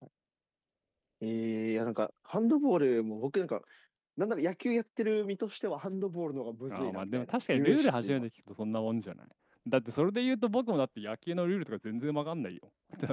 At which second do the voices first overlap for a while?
6.7 s

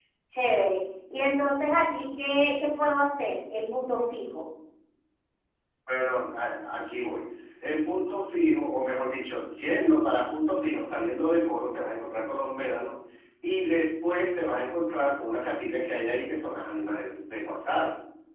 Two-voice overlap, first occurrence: none

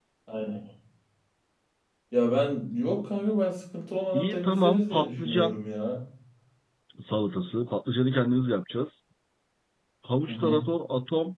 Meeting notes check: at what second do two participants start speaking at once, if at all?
4.1 s

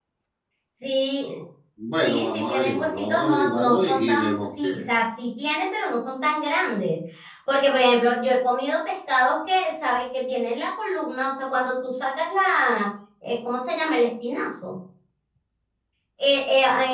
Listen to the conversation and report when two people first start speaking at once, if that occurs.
2.0 s

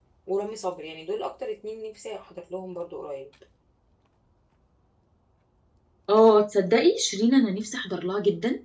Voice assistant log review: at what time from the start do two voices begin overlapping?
none

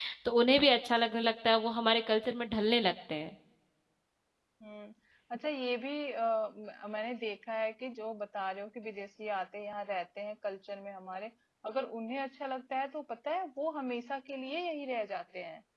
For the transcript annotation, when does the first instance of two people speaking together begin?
none

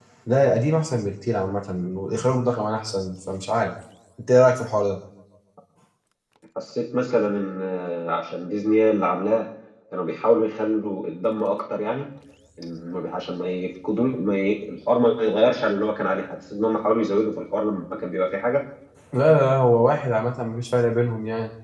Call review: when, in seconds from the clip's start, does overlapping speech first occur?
none

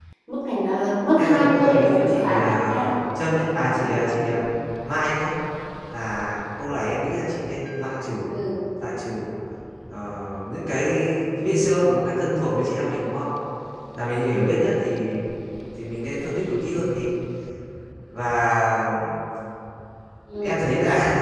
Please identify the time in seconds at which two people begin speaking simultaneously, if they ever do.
1.2 s

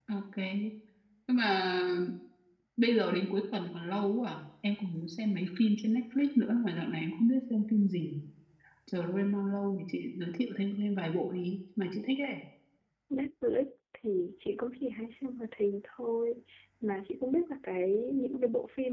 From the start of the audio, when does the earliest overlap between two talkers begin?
none

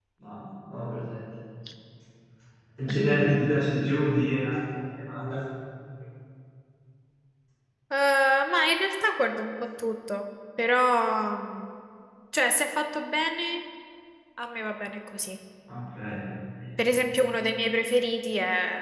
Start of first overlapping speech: none

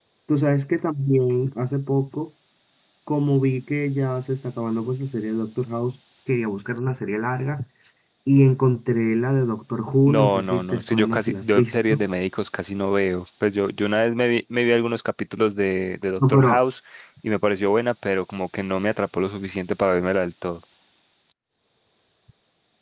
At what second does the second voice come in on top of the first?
10.1 s

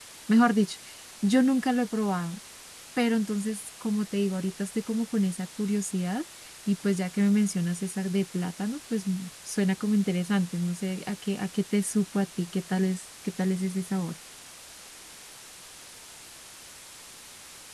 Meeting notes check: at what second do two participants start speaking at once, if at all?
none

